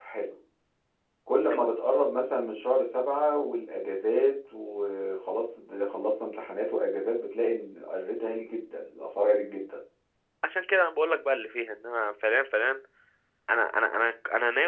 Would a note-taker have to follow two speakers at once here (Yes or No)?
No